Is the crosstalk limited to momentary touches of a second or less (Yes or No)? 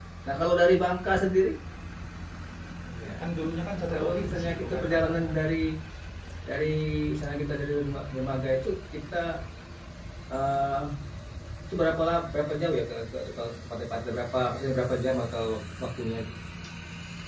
No